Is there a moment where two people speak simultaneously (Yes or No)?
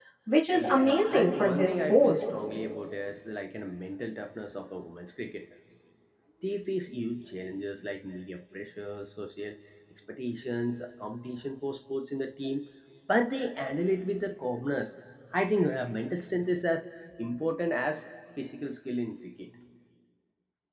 Yes